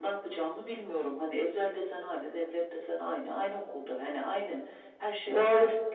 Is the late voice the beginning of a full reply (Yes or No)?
Yes